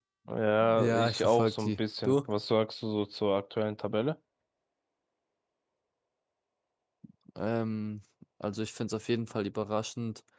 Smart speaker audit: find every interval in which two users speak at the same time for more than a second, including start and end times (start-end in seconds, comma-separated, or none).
0.8-2.2